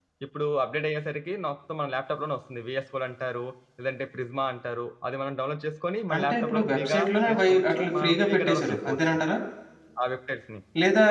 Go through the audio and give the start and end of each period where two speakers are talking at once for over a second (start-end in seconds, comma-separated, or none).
6.1-9.1